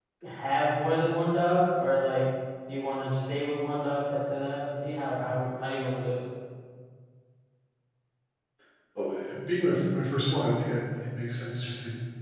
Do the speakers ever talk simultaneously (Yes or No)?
No